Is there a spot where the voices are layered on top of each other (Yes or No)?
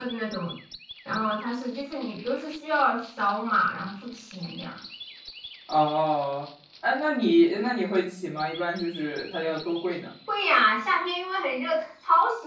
No